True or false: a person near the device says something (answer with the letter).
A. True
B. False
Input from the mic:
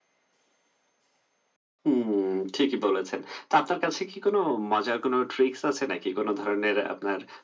B